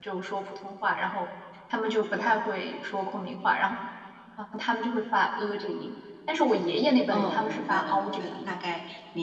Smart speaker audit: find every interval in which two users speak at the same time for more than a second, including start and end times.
7.1-8.6

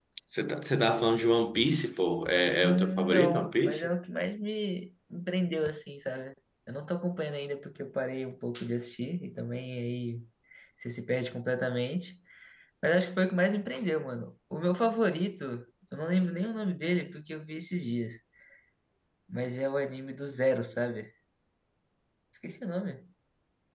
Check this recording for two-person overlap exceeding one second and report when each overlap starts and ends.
2.6-3.9

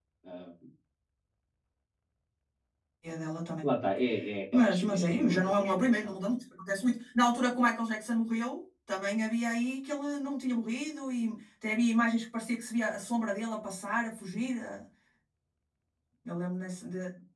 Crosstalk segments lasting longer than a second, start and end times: 4.5-6.2

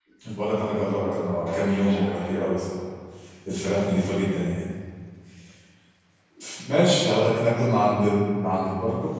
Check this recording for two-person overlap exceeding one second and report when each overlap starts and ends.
0.7-2.5

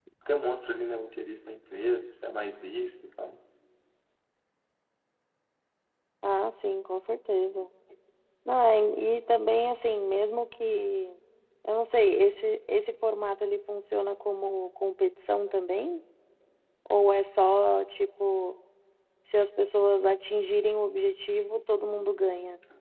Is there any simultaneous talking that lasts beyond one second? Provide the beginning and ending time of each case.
none

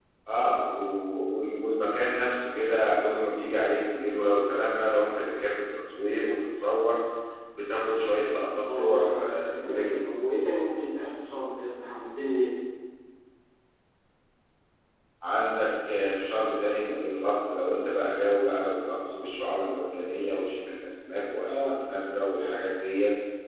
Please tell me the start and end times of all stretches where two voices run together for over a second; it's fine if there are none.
8.6-10.0

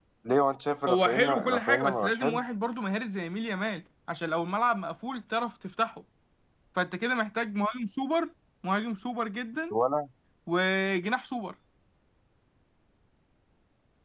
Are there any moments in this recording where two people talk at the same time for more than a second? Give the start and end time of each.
0.9-2.4

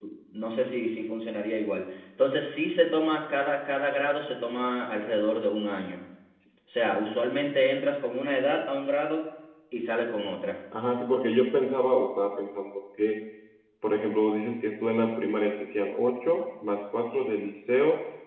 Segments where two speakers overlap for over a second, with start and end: none

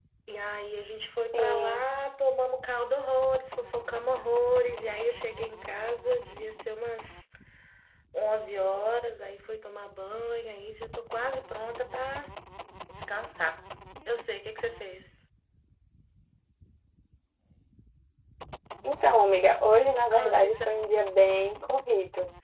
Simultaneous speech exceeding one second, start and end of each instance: none

